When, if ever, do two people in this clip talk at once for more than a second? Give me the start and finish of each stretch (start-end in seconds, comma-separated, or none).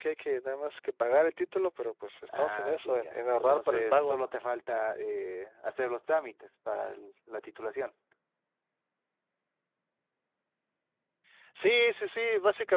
2.3-4.3